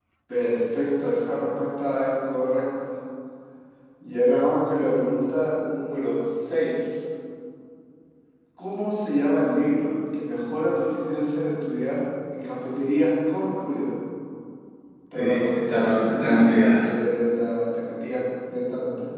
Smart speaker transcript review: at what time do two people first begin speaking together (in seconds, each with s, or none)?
15.1 s